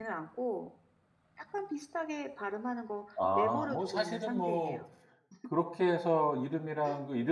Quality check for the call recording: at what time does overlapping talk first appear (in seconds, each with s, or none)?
3.3 s